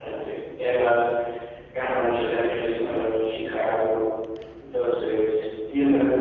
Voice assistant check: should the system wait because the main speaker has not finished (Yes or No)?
Yes